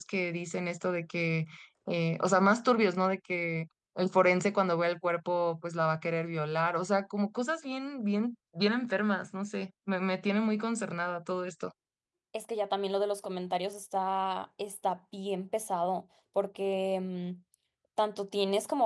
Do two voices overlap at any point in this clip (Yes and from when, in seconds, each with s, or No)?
No